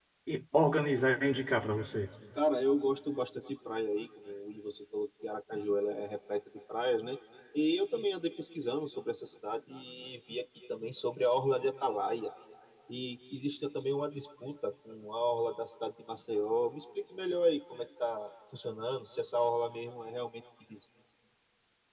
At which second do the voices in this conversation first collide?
none

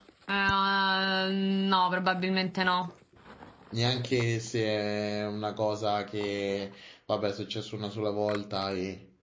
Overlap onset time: none

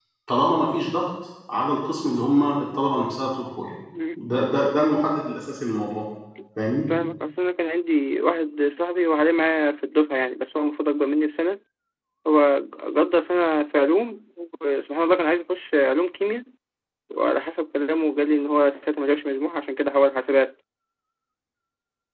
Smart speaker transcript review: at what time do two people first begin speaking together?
none

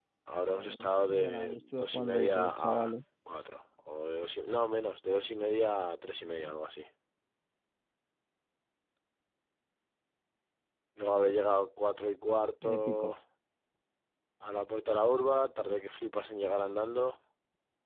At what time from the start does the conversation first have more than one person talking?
1 s

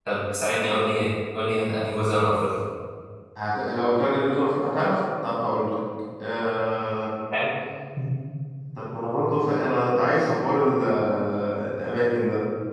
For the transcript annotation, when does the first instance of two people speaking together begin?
none

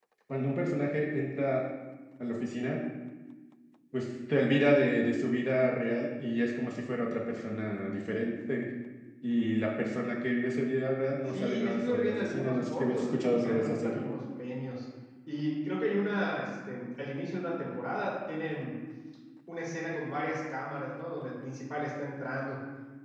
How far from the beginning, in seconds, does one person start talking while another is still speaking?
11 s

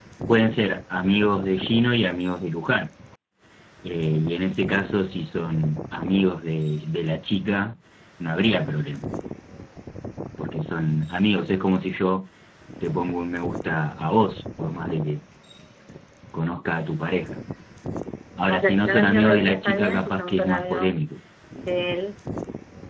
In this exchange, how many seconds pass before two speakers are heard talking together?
19 s

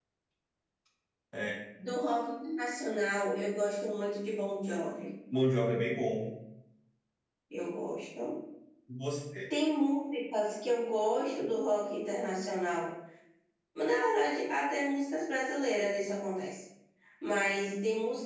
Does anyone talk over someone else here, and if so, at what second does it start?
none

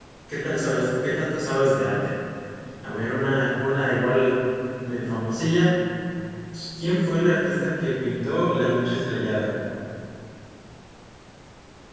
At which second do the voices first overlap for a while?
none

